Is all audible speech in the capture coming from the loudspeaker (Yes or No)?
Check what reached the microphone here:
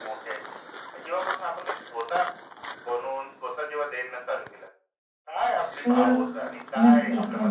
No